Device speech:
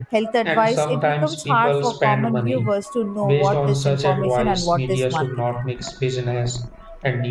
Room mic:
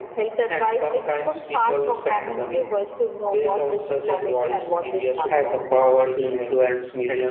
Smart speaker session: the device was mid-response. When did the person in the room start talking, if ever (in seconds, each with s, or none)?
5.3 s